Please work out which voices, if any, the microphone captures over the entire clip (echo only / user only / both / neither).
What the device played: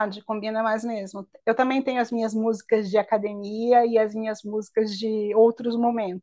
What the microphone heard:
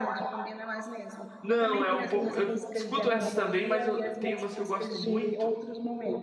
both